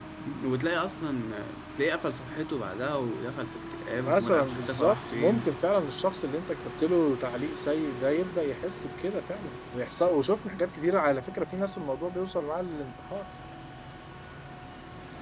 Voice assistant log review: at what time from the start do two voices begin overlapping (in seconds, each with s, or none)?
4.0 s